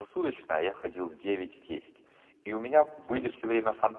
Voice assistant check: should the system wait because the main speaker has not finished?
Yes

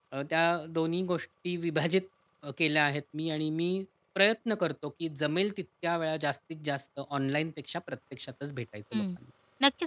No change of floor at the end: No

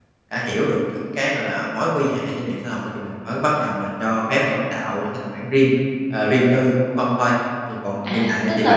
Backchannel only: No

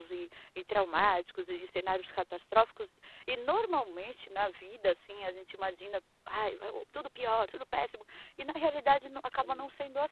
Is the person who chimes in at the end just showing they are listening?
Yes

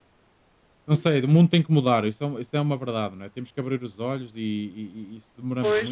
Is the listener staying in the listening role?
No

